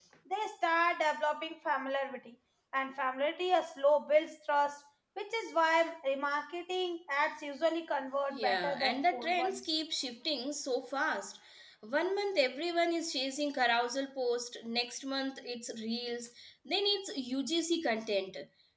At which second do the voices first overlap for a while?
8.3 s

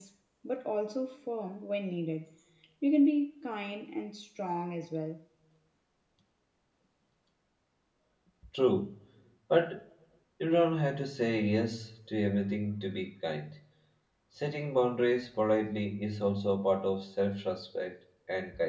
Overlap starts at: none

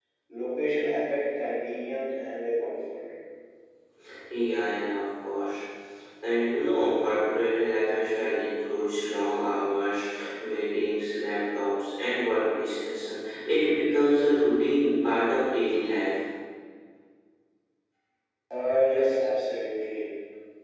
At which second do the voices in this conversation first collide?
none

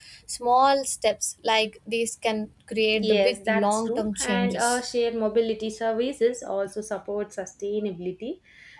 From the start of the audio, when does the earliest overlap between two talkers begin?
2.9 s

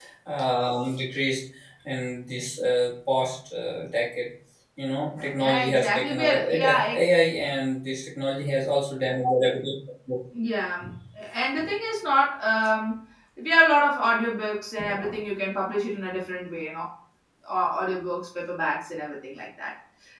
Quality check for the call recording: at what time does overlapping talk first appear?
5.3 s

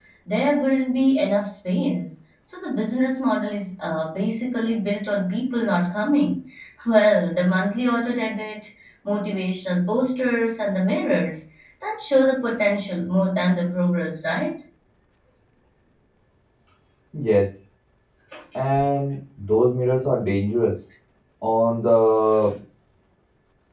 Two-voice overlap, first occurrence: none

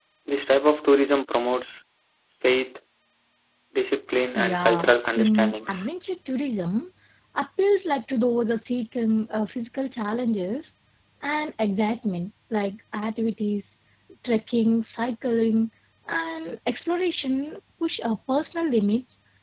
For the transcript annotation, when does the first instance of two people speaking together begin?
4.3 s

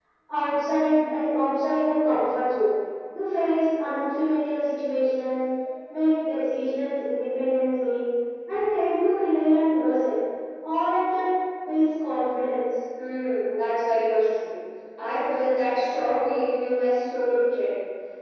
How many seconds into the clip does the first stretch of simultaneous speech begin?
none

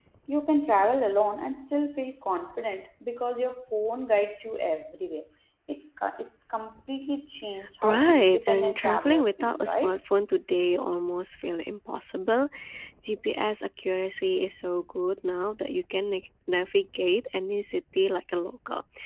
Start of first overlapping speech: 7.8 s

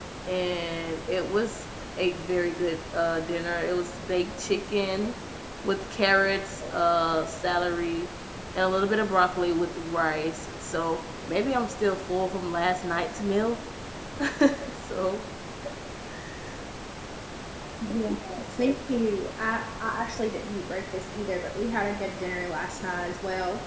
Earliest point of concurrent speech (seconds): none

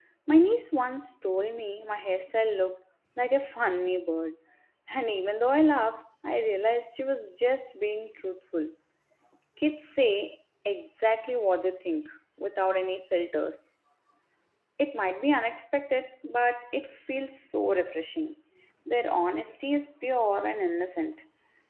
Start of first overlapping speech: none

